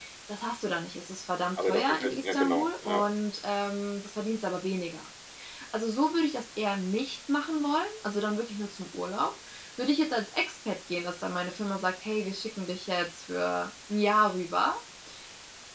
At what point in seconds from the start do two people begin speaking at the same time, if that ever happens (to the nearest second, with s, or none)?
2 s